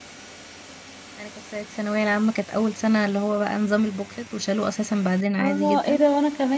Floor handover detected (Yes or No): Yes